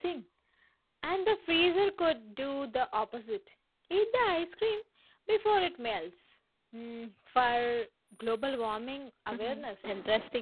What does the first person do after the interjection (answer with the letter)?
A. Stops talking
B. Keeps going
A